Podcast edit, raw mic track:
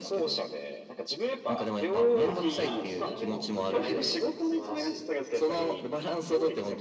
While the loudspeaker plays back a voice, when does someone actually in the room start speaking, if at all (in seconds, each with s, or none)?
2.2 s